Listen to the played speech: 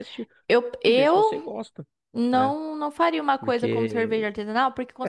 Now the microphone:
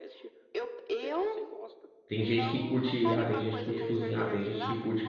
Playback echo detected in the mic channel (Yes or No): Yes